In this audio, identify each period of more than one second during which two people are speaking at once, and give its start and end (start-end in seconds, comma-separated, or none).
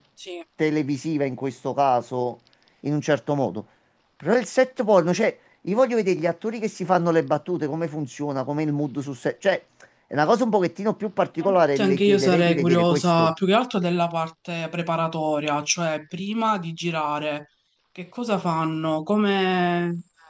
11.4-13.3